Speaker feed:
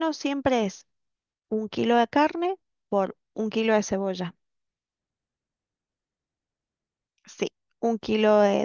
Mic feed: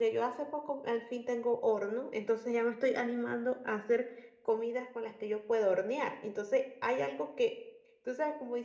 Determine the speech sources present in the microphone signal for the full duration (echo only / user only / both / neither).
user only